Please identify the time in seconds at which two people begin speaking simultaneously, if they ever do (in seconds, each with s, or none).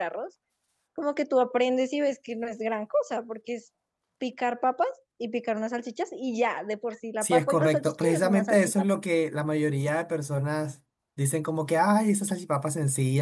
7.2 s